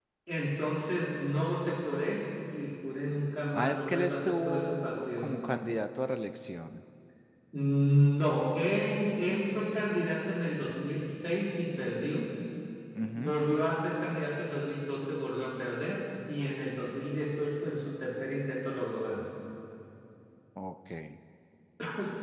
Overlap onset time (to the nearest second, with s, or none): 4 s